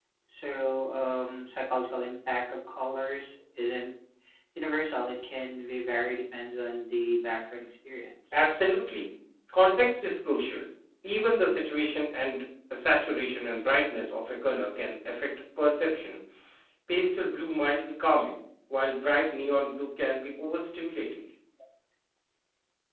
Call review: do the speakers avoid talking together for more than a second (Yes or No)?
Yes